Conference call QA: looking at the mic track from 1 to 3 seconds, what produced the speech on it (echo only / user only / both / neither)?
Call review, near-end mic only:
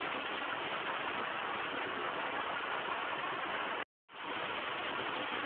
neither